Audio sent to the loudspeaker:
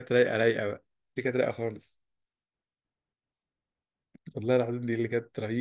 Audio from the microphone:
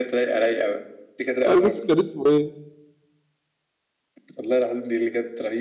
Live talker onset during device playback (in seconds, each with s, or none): 1.4 s